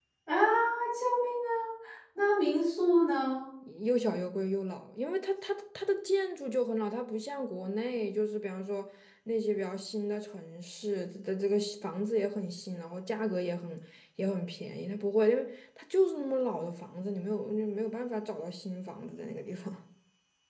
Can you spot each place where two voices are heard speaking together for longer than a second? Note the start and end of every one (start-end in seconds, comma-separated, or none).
none